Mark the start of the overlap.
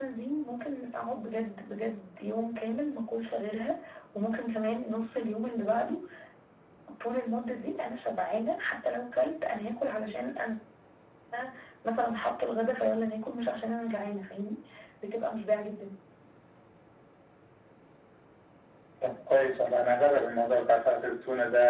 none

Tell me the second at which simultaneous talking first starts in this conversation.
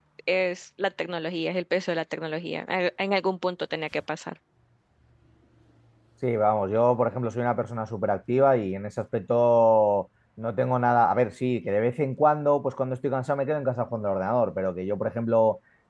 none

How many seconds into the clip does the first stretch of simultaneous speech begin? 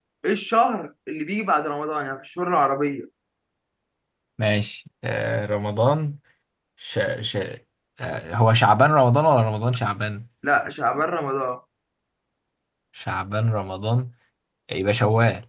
none

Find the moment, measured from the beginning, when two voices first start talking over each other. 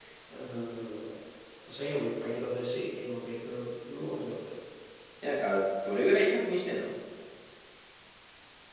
none

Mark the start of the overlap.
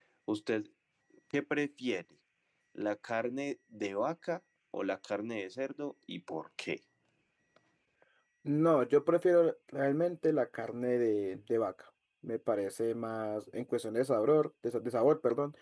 none

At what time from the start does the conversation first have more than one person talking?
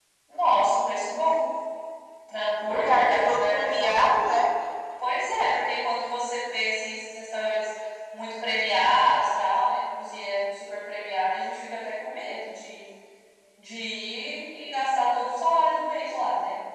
2.7 s

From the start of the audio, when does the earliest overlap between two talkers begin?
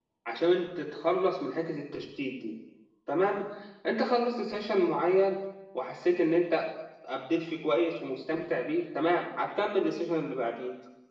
none

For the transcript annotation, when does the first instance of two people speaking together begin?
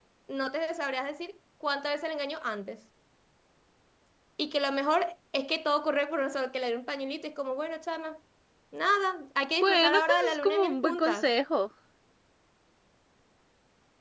9.6 s

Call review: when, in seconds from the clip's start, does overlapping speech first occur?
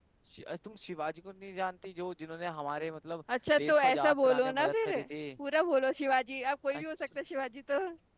3.6 s

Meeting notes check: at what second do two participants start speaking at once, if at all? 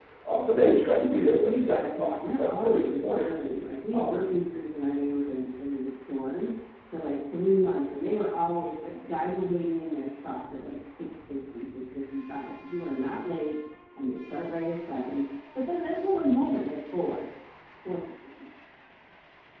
1.0 s

